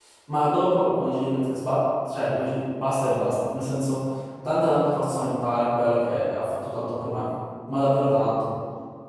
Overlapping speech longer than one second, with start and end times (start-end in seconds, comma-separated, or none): none